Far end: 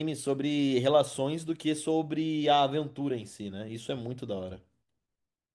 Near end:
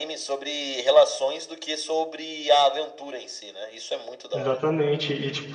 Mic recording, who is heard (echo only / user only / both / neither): both